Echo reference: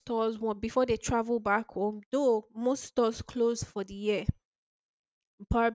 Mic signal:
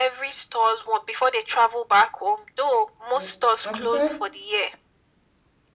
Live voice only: mm. I prefer.

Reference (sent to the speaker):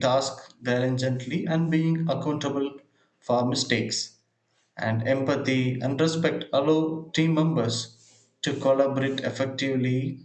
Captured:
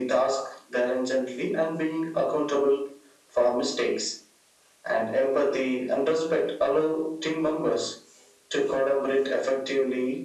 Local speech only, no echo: none

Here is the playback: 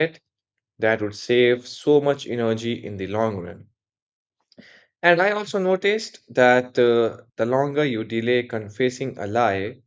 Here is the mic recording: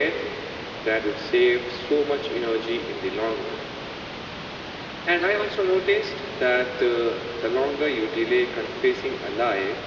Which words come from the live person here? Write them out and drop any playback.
none

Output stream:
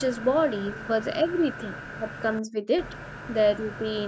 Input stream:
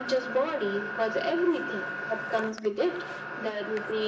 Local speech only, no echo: none

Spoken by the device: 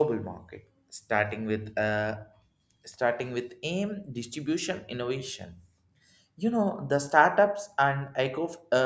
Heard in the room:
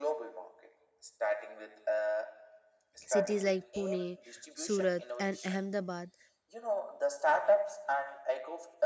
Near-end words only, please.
Cities like Pune, Surat, and Ahmedabad,

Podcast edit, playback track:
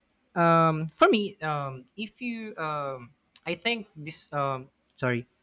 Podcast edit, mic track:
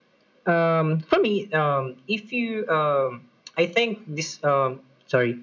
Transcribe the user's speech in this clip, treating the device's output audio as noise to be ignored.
none

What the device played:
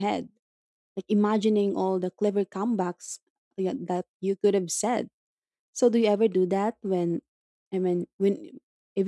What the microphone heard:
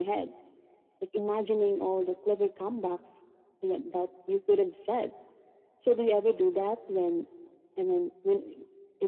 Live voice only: none

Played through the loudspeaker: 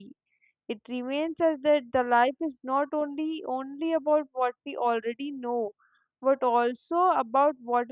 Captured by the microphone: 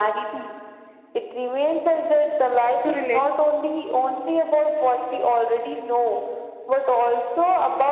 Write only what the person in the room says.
So relate

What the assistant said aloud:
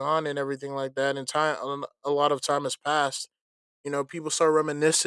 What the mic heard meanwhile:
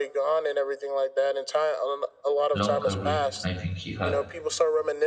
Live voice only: long career, I think he had,

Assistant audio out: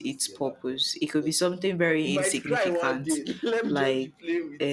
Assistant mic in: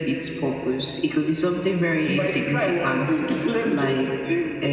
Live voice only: none

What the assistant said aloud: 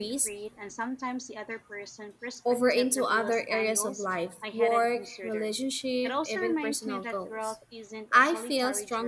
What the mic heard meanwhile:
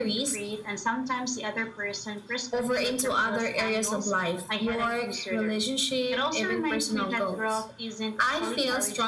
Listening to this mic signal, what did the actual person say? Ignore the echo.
none

